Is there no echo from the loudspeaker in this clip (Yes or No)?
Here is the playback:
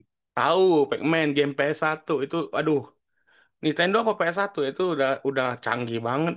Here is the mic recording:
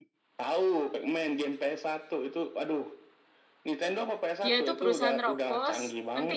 No